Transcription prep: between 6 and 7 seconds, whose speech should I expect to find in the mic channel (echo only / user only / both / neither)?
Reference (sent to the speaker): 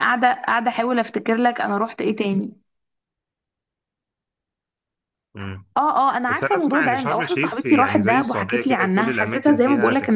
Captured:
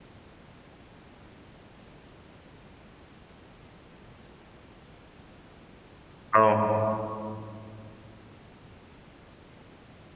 user only